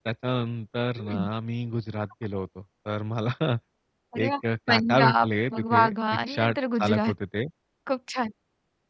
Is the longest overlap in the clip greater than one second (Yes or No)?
Yes